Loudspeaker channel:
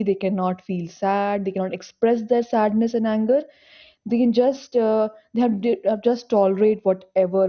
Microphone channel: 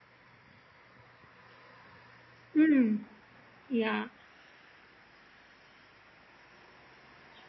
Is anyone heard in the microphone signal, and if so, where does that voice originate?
user only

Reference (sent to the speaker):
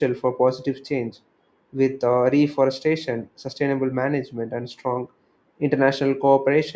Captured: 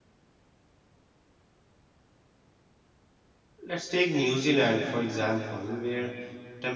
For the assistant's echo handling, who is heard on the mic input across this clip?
user only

